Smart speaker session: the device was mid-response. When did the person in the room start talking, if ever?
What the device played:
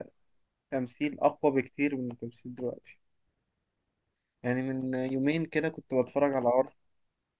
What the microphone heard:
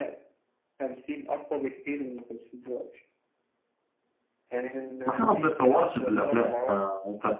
5.0 s

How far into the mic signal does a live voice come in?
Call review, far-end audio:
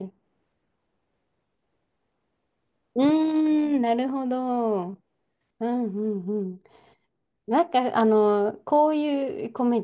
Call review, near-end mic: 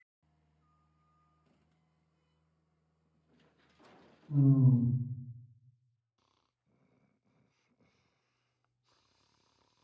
4.3 s

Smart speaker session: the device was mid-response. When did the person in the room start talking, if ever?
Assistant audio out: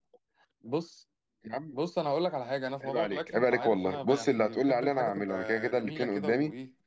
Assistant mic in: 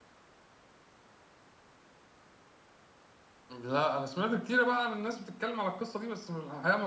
3.5 s

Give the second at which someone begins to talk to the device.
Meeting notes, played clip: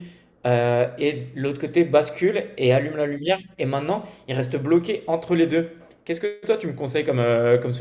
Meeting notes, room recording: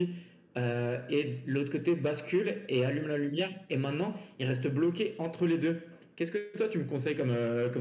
none

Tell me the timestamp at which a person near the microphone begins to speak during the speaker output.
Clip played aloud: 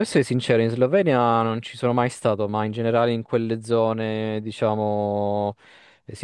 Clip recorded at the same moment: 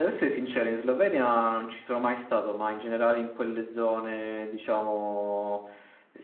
none

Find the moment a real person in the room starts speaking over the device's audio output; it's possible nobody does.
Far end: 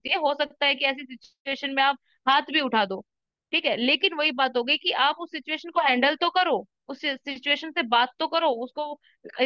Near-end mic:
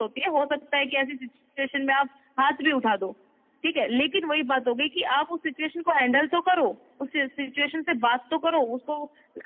none

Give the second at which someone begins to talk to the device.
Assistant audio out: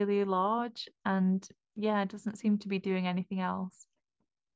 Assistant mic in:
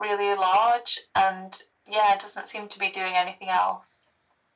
none

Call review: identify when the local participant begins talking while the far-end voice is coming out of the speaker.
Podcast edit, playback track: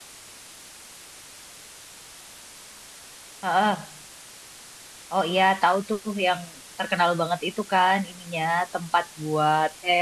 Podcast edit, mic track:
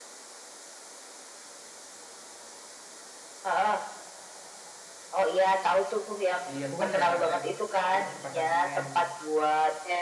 6.5 s

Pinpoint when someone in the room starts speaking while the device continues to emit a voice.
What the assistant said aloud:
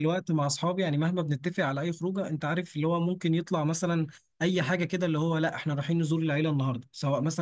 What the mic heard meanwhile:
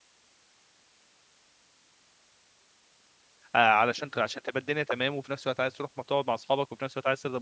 3.5 s

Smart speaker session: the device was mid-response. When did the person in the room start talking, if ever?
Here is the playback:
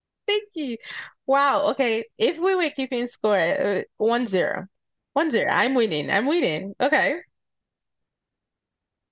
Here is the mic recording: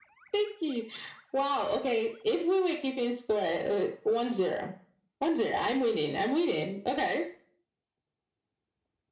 none

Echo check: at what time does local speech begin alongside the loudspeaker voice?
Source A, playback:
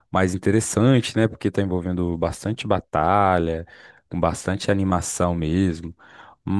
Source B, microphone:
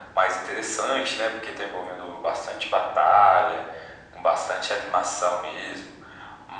none

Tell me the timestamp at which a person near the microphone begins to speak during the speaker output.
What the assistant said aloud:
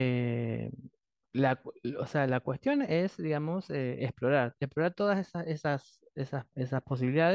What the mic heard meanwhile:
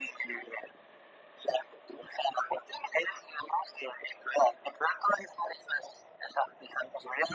none

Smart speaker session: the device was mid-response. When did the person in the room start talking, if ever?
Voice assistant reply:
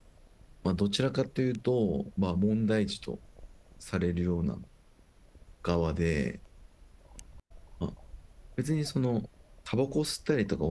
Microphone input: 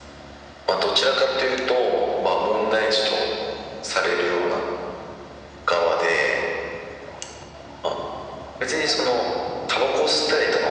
none

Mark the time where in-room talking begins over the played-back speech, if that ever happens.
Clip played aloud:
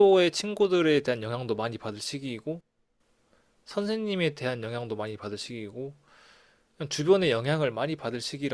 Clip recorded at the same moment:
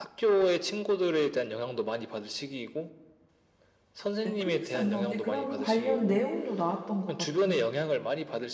4.2 s

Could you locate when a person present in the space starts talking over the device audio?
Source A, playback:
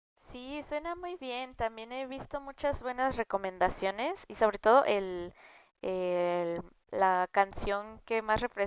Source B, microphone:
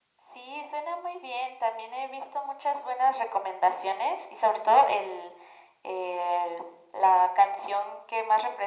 none

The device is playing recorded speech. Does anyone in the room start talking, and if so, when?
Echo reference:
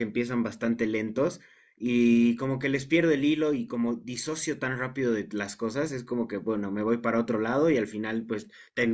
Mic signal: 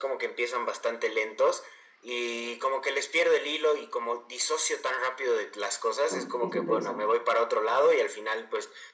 6.1 s

